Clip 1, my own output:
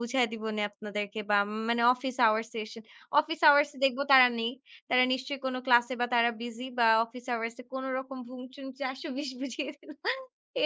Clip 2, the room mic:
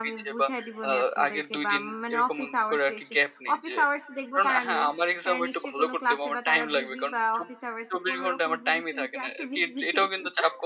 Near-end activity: present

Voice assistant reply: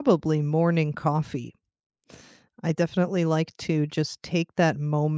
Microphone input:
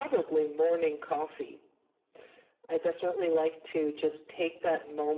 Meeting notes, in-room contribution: none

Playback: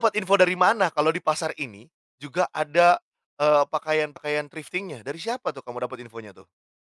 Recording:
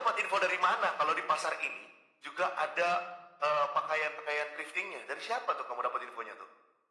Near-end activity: none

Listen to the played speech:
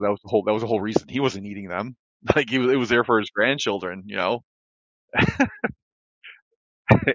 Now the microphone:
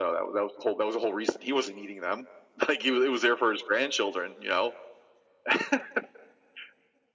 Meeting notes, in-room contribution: none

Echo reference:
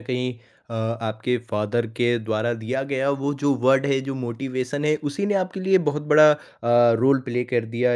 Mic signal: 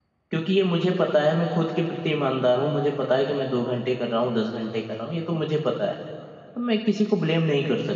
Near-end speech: present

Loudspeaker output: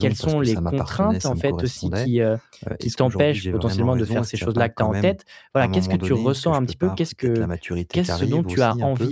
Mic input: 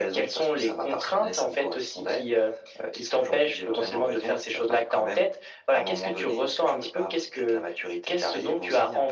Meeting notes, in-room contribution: none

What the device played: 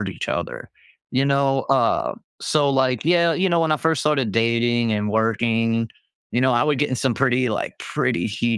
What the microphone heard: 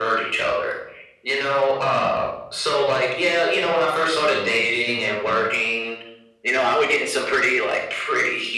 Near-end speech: present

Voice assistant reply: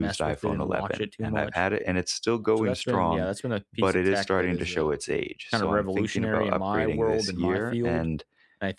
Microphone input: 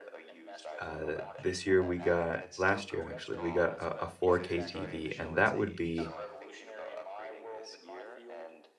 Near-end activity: present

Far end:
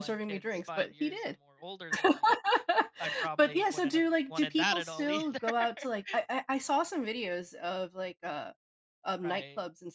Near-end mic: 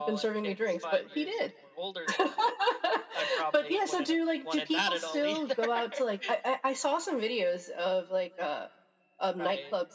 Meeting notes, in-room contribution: none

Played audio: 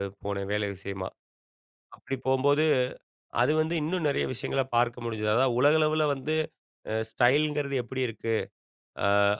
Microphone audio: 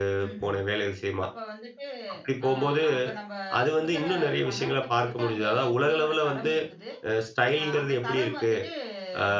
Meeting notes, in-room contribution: present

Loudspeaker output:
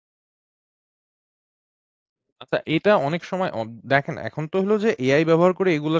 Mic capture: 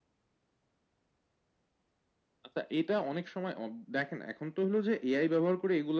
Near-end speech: none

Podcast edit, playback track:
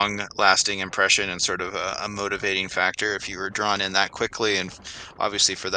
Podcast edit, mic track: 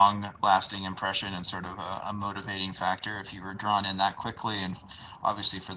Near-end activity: none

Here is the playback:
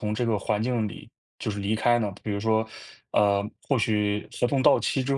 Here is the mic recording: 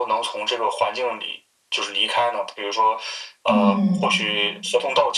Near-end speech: present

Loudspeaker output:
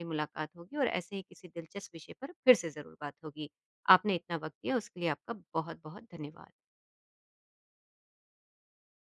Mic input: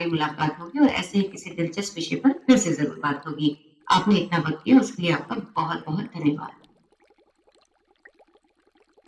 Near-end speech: none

